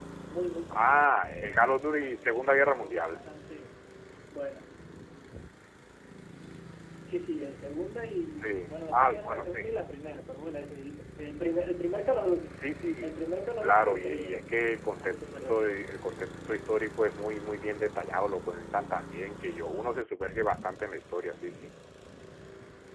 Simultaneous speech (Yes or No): Yes